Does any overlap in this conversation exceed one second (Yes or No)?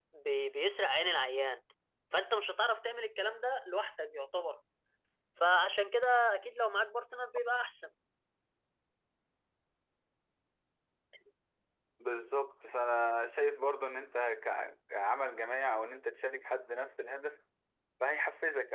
No